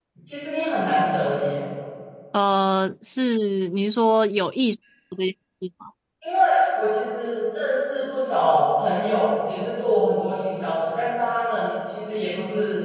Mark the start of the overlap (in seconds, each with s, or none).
none